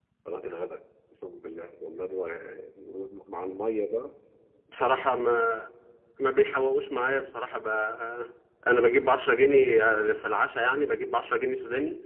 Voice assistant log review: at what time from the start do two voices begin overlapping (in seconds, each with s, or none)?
none